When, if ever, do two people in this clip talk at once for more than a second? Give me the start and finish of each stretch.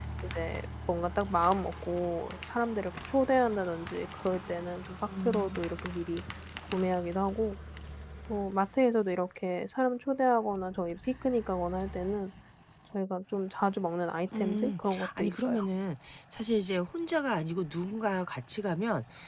14.3-15.6

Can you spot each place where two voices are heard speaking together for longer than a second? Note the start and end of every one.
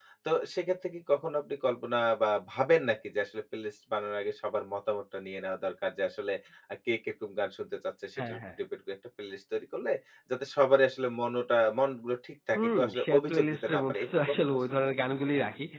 12.6-14.9

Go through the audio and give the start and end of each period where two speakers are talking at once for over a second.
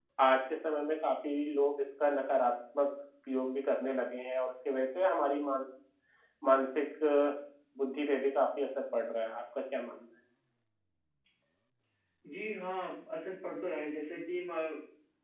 none

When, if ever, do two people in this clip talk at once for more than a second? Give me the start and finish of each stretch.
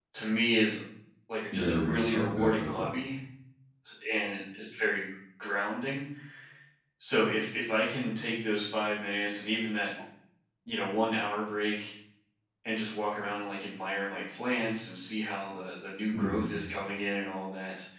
1.5-2.8

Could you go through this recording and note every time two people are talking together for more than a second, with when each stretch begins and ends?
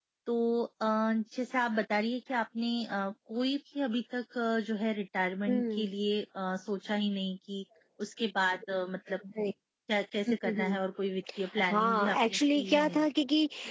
11.7-13.1

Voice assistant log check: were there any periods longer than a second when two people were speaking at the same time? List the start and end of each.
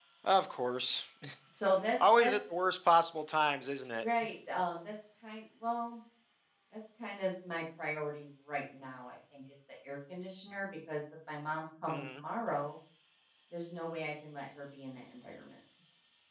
none

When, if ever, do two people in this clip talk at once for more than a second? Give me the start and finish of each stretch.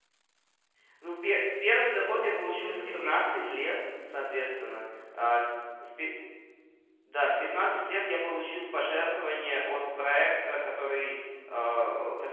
2.0-3.6

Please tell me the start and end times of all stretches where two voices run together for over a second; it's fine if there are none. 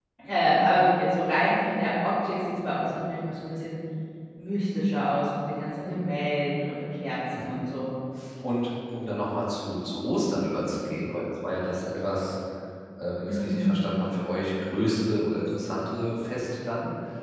none

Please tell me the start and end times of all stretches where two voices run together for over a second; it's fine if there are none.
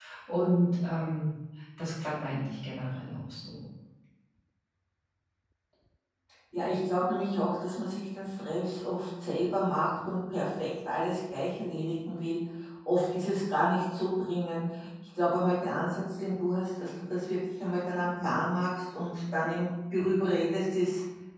none

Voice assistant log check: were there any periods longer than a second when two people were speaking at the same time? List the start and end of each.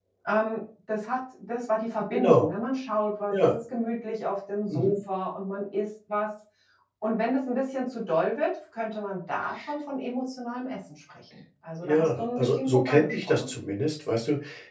11.8-13.5

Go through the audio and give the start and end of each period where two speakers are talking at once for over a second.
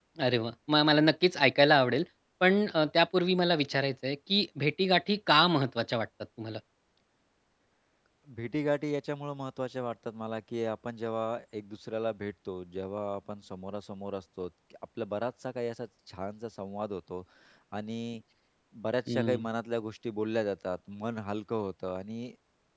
none

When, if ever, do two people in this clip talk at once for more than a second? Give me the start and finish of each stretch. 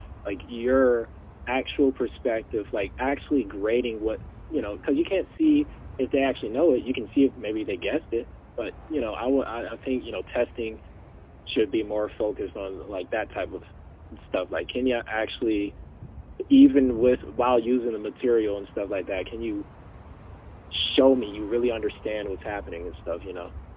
none

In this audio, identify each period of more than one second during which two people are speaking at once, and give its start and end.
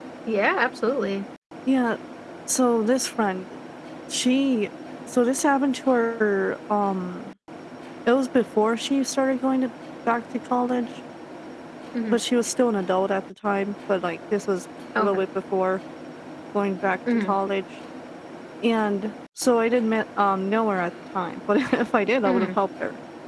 none

